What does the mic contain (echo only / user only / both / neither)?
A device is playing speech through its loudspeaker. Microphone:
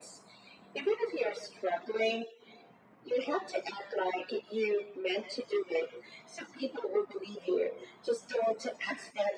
echo only